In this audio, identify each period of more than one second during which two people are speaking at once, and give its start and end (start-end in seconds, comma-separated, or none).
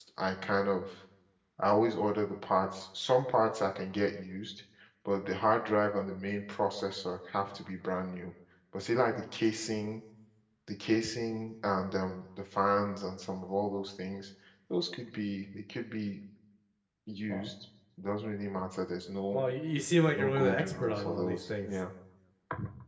20.1-21.8